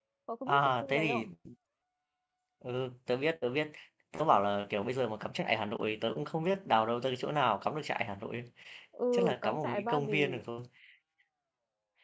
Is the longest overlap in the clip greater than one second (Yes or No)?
Yes